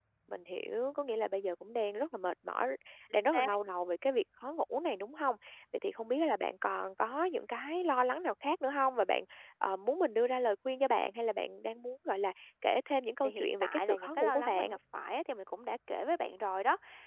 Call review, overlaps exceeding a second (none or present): present